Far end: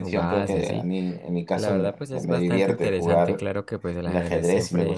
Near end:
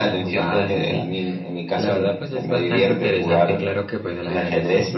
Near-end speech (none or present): none